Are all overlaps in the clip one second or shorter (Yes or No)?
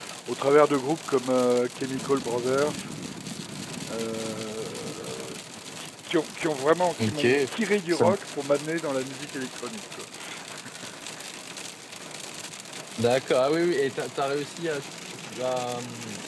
Yes